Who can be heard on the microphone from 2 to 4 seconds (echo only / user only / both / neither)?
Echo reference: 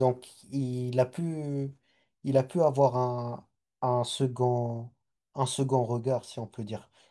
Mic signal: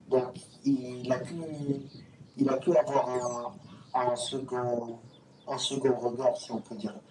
echo only